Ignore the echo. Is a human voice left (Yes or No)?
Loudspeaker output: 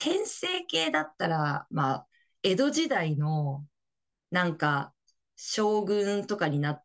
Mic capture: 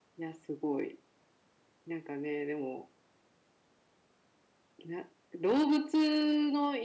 Yes